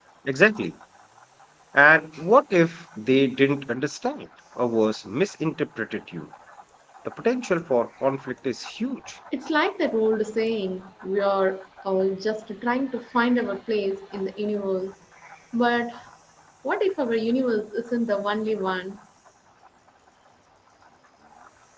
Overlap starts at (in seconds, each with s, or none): none